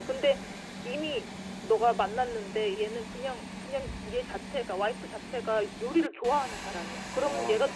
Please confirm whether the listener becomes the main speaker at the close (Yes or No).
No